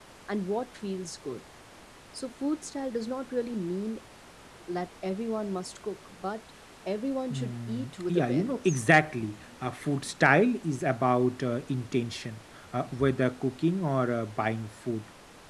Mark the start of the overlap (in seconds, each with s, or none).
7.3 s